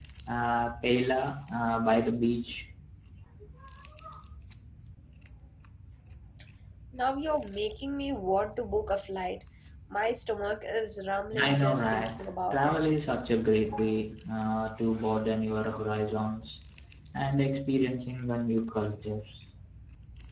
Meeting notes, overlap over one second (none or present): present